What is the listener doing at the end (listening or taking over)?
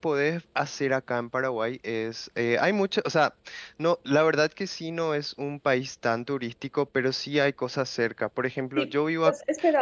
taking over